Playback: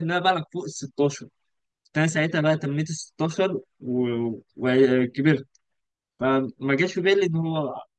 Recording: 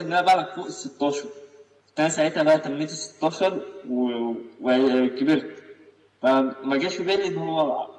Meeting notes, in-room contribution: none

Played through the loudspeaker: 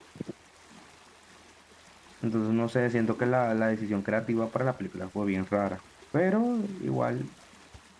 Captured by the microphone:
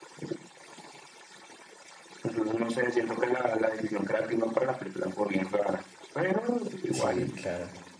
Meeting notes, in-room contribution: present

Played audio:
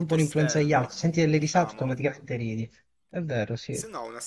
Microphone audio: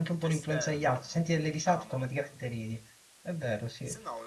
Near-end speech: none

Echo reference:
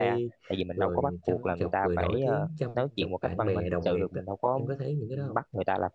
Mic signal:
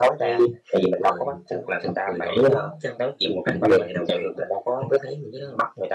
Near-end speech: none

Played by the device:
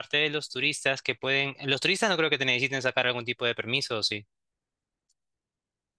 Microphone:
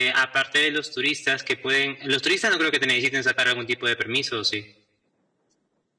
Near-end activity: none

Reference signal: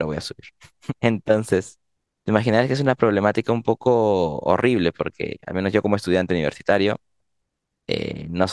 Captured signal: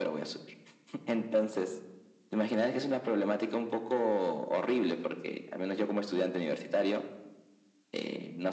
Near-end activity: none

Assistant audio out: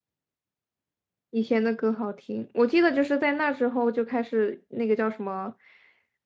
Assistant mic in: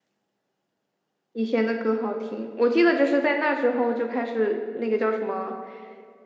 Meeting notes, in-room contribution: none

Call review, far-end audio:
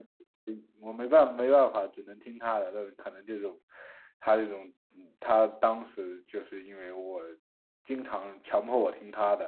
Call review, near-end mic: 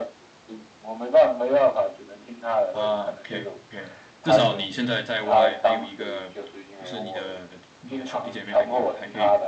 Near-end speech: present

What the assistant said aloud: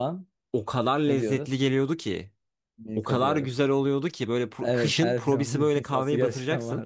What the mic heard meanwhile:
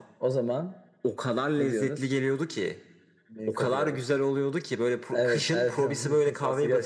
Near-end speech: none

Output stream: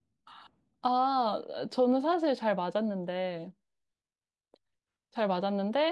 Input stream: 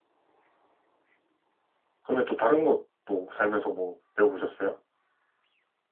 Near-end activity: present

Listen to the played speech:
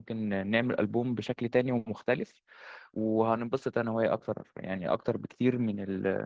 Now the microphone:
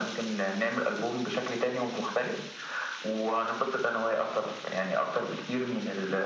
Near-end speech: none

